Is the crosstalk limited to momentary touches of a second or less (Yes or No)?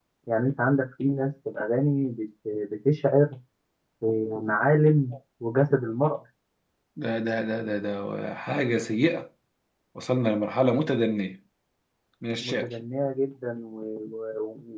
Yes